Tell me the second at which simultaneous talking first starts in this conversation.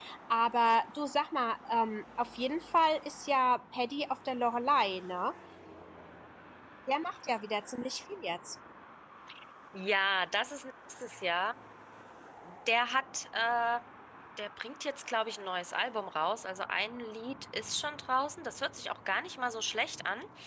none

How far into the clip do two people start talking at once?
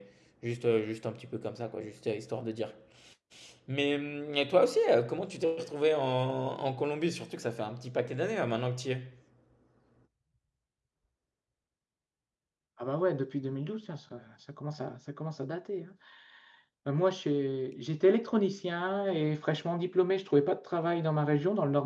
none

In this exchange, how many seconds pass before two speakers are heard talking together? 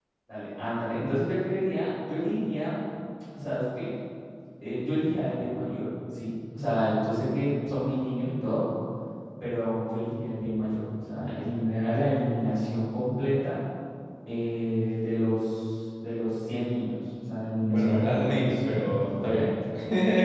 17.6 s

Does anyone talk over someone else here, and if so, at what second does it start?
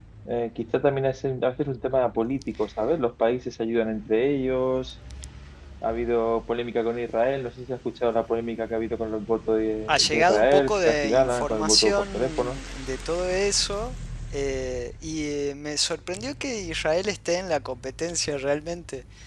9.9 s

